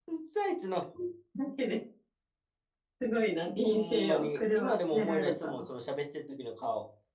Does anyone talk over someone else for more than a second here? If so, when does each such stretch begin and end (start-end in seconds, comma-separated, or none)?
3.6-5.7